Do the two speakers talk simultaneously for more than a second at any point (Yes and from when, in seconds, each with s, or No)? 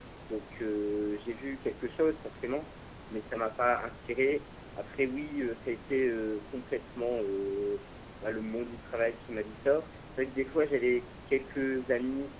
No